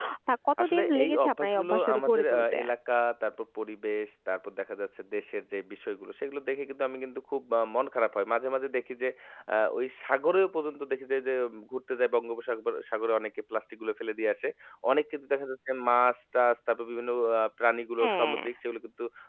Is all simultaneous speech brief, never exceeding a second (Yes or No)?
No